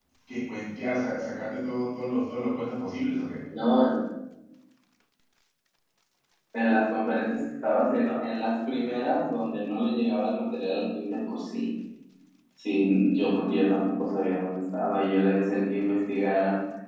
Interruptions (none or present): none